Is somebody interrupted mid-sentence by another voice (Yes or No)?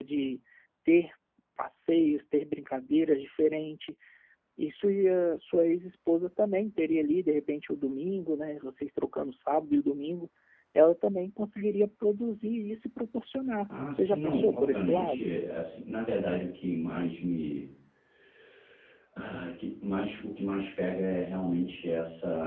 Yes